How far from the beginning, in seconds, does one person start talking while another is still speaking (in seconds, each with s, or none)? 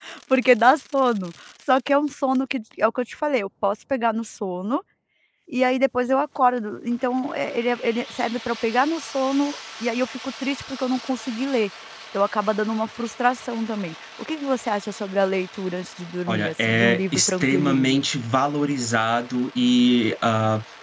16.3 s